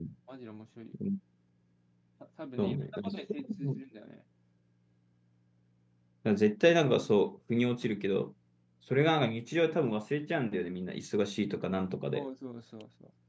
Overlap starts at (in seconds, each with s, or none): 2.6 s